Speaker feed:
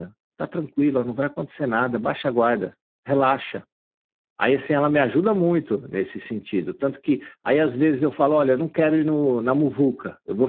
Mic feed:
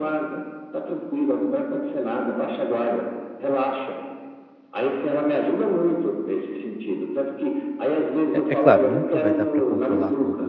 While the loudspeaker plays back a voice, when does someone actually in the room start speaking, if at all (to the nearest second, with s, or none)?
8 s